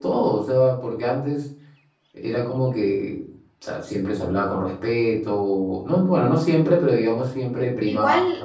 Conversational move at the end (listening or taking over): taking over